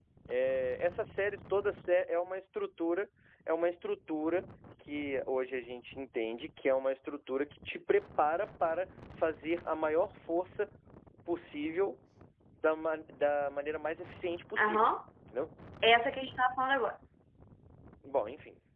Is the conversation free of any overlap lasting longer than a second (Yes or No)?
Yes